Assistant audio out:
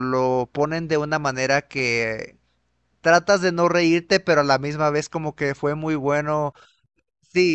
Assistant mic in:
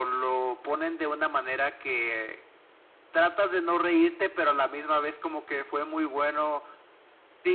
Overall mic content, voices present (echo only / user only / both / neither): echo only